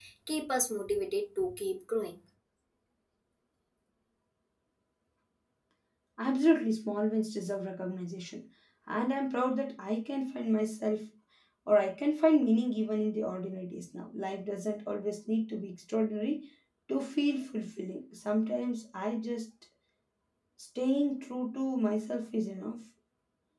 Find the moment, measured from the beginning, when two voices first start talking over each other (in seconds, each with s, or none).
none